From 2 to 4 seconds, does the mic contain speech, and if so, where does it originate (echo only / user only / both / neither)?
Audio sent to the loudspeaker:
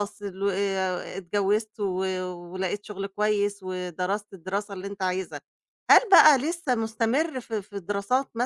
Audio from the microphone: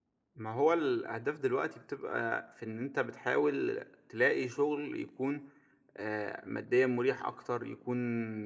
user only